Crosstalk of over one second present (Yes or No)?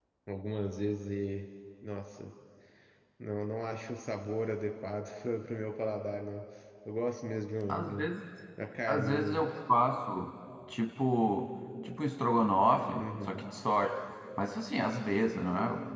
No